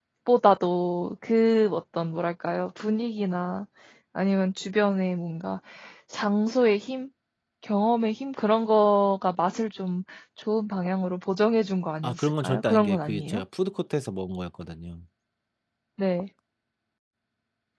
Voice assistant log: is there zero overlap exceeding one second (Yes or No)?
No